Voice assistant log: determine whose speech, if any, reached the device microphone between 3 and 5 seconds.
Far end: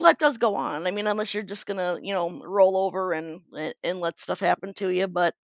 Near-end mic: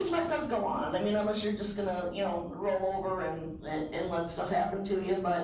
echo only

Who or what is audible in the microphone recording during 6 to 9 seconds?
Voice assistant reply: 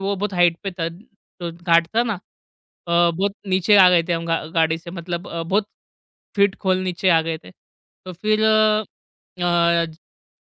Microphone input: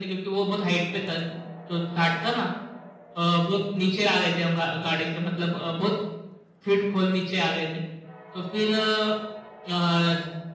echo only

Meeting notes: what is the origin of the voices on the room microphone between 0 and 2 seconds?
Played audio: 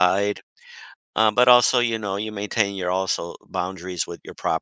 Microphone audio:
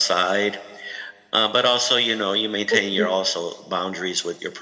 echo only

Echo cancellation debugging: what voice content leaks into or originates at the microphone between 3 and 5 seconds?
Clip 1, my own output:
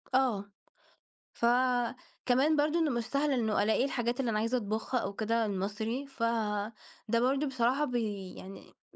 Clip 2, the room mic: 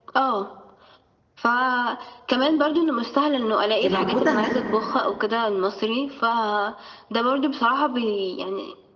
both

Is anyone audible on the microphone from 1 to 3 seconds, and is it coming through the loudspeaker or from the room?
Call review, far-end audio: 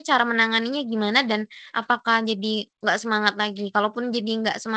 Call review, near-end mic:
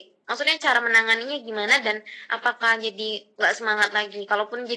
echo only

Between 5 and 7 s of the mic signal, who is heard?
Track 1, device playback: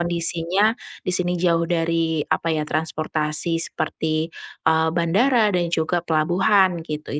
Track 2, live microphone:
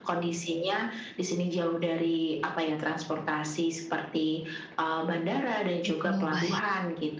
both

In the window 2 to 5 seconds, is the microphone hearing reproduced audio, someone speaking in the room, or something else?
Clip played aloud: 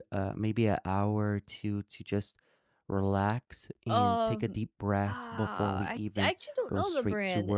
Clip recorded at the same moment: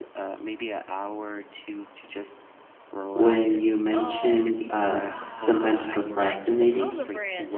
both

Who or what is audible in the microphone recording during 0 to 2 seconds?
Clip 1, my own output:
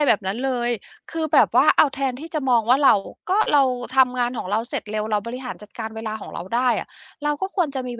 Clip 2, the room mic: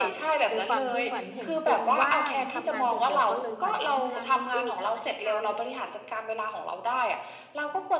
both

